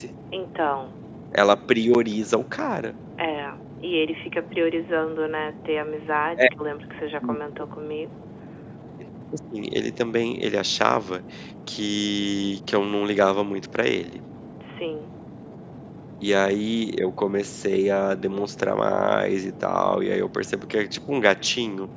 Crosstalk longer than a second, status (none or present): none